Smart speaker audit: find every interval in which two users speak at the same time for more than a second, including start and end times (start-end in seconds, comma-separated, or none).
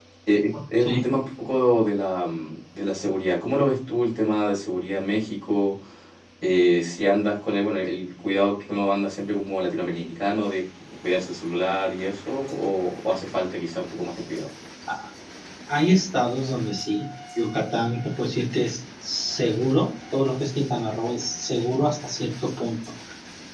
none